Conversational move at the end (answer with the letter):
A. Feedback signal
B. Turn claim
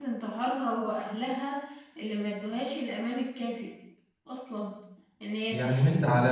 B